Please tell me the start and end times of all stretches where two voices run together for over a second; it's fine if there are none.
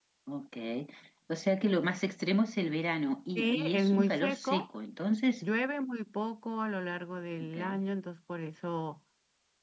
3.4-4.7

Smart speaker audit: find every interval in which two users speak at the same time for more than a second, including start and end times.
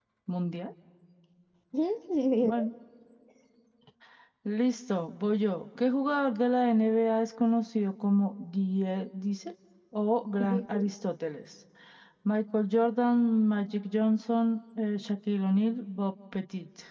none

